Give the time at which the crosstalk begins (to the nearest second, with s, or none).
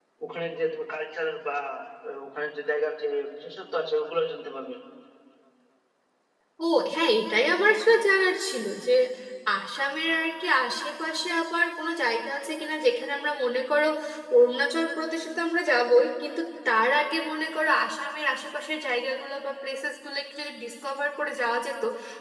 none